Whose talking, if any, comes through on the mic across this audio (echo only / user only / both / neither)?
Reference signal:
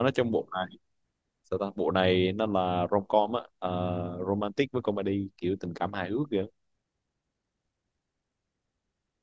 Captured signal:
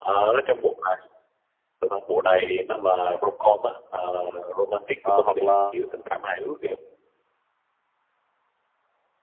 both